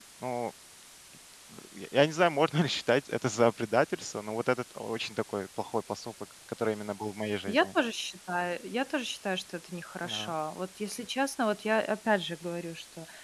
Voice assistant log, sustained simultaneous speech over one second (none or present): none